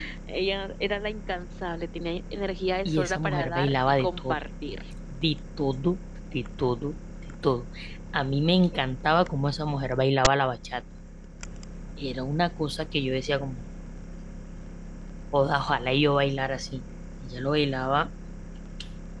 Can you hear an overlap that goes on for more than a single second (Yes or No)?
Yes